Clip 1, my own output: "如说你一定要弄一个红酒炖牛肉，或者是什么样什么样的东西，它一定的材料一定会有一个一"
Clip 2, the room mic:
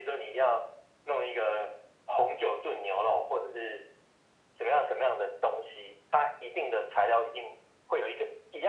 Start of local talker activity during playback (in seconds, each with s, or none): none